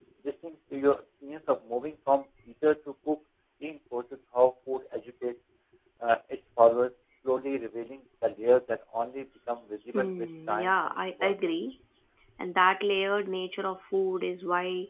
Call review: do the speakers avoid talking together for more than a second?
No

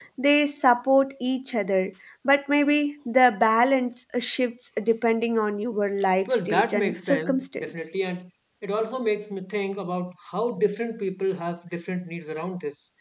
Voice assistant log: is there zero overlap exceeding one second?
No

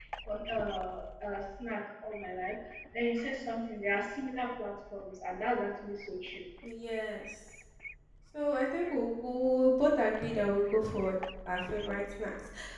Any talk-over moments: No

